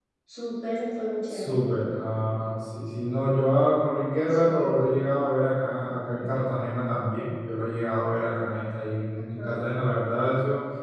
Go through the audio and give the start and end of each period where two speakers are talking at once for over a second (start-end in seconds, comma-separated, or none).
none